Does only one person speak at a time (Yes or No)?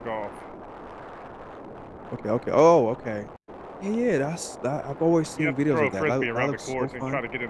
No